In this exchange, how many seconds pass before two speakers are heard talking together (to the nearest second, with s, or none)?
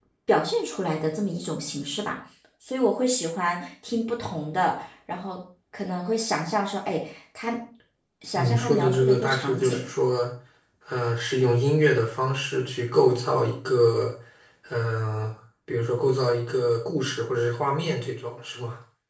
8 s